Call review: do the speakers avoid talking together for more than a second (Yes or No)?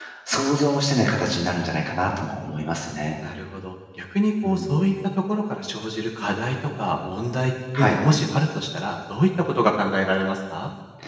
Yes